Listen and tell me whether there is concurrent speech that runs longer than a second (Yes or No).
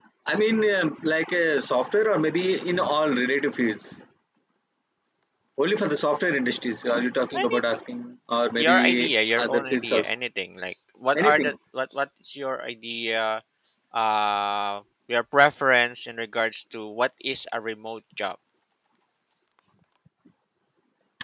Yes